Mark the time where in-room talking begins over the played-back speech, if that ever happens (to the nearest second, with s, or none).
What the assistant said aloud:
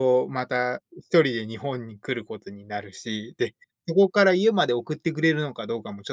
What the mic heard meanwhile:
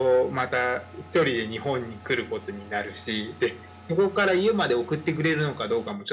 none